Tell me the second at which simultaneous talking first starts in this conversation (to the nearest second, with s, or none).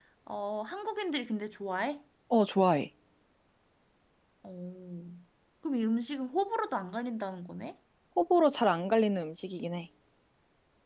none